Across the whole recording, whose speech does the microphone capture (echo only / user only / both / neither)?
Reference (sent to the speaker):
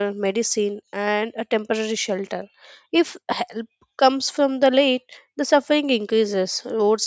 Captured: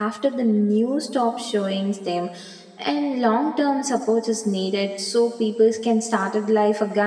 user only